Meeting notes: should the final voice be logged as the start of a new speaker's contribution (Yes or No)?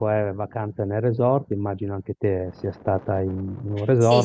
Yes